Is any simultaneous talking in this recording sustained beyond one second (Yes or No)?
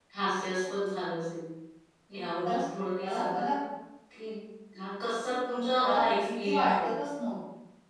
Yes